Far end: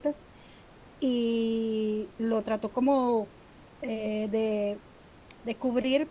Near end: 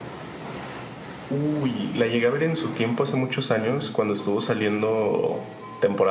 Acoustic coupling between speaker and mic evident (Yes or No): No